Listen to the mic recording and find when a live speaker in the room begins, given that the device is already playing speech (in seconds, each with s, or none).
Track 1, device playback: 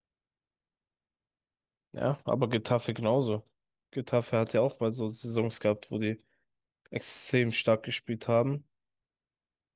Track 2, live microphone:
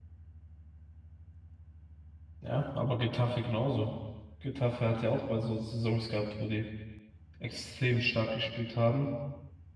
none